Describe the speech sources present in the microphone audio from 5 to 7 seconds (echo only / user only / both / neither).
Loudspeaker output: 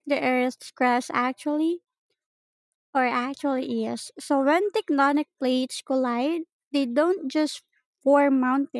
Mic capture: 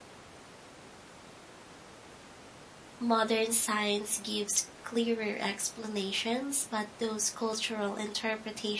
user only